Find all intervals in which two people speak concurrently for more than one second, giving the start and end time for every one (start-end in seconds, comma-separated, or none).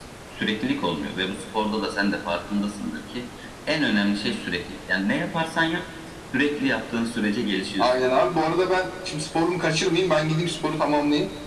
none